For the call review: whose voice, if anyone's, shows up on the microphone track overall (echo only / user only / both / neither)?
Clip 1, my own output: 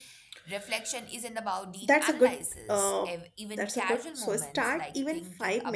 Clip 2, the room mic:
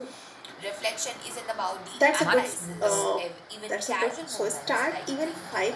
both